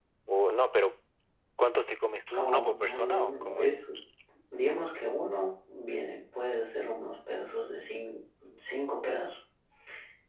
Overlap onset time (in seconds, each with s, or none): 2.4 s